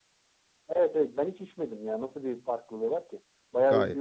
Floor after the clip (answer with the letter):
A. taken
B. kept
A